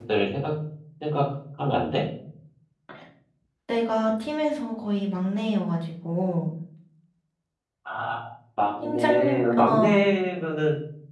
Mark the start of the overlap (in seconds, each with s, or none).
8.8 s